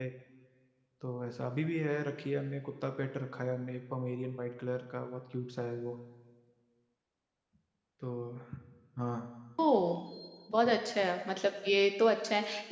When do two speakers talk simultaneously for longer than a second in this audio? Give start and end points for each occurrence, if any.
none

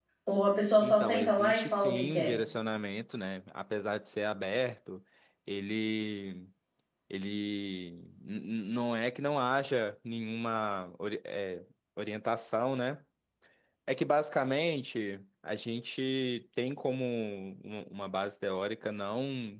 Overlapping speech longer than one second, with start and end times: 0.8-2.3

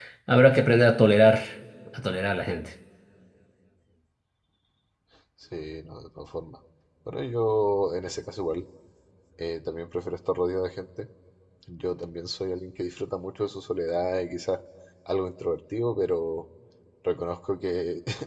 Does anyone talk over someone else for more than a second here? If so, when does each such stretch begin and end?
none

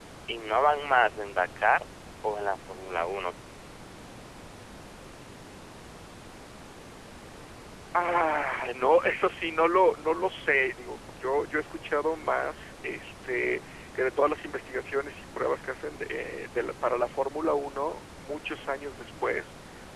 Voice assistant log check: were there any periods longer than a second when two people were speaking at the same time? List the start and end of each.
none

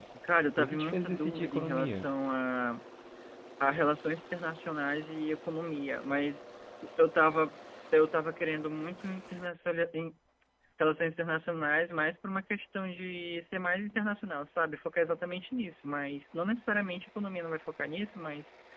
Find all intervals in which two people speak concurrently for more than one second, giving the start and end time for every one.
0.6-2.0

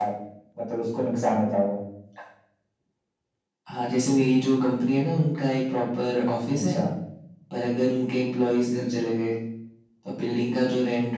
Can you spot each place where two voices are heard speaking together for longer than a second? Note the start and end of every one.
none

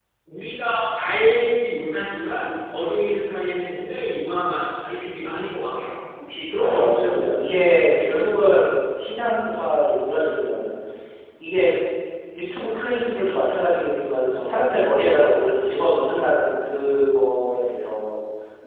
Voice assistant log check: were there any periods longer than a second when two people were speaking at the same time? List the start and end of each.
6.6-8.2

